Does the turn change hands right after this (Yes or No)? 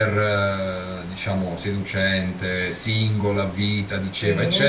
No